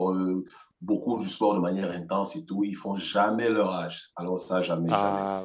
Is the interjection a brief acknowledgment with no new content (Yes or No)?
No